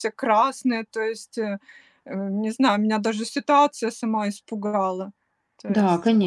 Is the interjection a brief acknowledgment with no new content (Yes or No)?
No